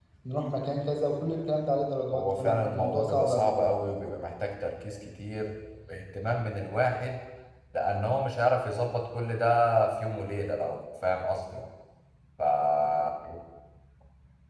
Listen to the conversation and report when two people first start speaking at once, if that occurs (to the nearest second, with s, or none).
2 s